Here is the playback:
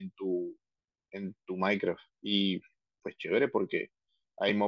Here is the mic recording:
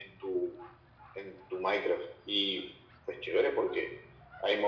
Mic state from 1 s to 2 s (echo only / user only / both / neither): echo only